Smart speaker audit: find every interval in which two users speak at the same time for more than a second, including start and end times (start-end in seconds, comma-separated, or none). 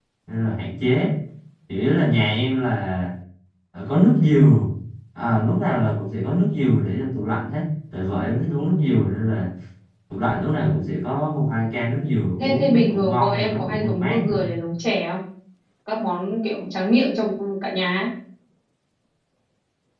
12.4-14.5